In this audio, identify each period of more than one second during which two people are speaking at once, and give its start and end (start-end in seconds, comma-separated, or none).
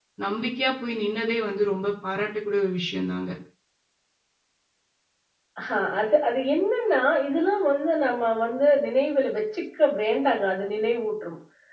none